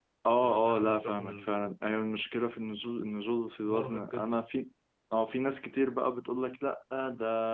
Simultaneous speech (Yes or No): Yes